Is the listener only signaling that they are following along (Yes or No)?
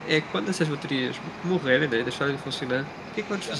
Yes